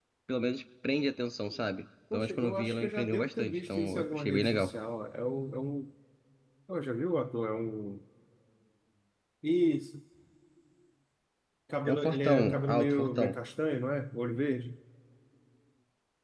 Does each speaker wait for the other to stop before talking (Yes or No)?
No